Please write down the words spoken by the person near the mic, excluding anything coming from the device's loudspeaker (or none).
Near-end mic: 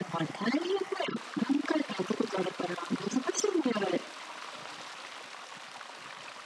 none